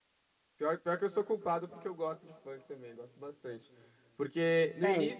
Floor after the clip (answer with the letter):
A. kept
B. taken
A